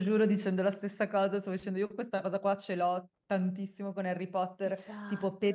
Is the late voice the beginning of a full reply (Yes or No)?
No